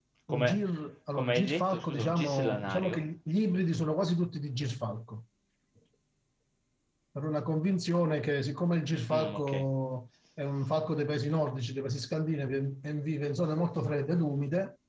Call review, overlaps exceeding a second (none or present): present